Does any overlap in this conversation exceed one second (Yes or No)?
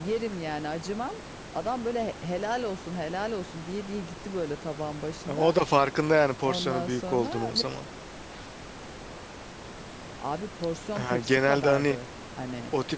Yes